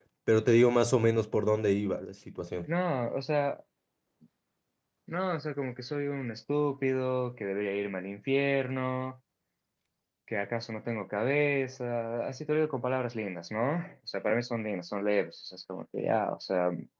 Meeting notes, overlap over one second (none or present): none